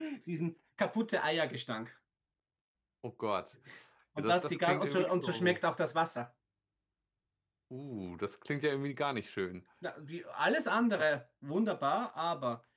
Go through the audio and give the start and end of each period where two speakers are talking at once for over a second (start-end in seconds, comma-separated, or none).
4.2-5.6